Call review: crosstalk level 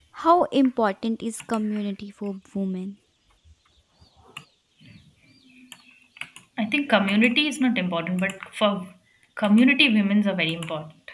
none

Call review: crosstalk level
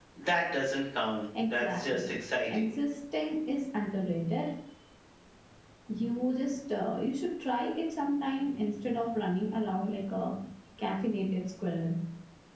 present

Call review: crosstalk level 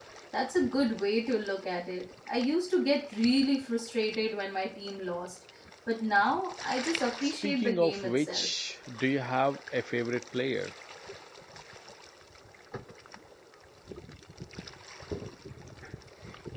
present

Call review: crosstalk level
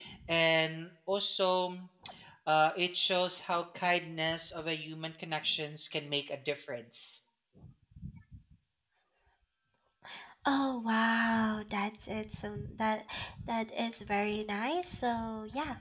none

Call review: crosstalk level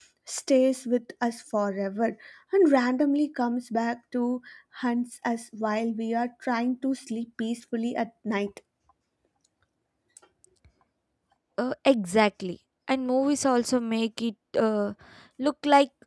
none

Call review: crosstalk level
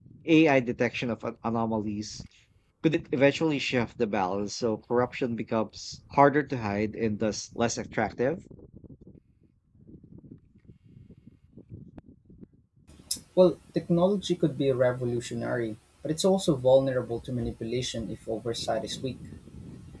none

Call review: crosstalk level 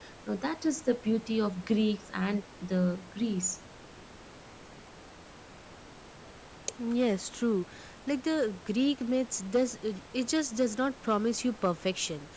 none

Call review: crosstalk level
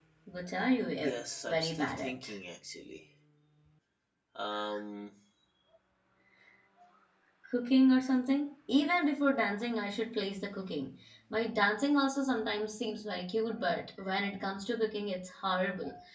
present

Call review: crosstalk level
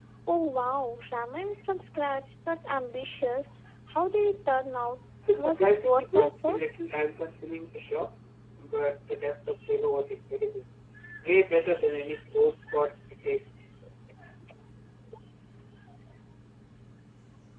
present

